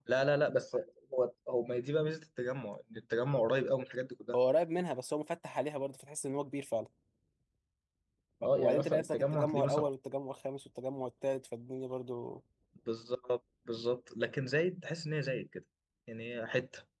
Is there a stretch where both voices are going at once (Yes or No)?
Yes